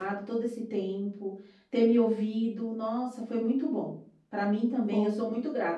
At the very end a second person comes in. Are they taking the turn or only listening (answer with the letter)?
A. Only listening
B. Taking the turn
A